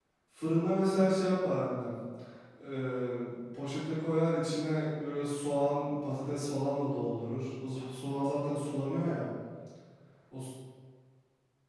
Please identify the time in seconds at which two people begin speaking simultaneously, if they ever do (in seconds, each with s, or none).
none